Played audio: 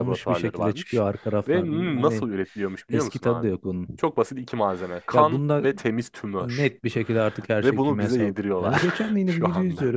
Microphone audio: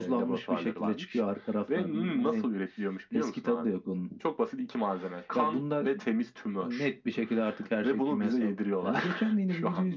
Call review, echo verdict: present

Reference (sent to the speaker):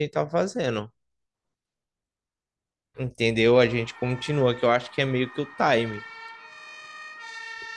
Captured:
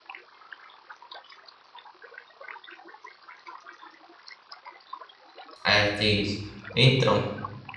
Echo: none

